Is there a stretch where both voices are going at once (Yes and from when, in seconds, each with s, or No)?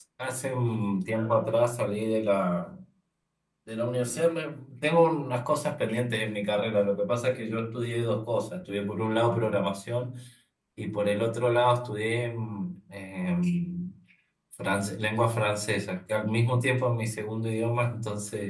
No